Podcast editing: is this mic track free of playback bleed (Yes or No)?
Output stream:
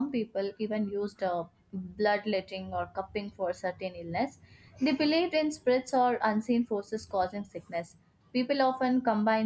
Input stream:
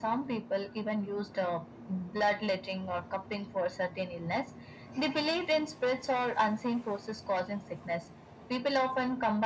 No